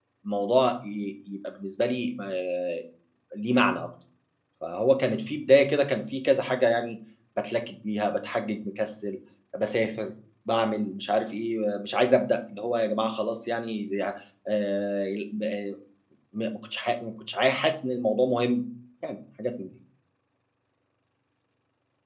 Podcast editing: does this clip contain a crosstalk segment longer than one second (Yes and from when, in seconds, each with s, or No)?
No